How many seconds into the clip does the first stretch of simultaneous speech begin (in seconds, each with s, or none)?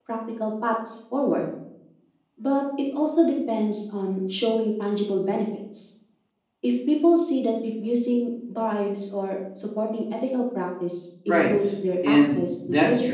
11.3 s